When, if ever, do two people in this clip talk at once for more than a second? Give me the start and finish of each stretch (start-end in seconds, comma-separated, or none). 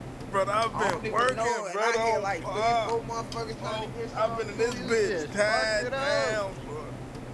0.7-2.9, 3.6-6.4